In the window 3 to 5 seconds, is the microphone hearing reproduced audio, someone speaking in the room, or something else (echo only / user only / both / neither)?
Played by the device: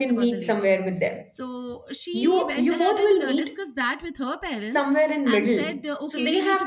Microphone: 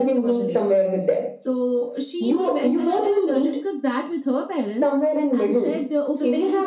echo only